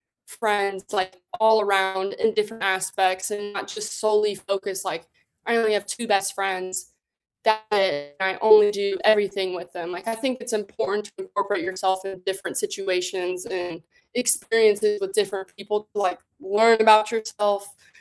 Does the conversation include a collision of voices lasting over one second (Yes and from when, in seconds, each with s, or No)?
No